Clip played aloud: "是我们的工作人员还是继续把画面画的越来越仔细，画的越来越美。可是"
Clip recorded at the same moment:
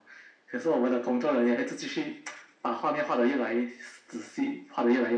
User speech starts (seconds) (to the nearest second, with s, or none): none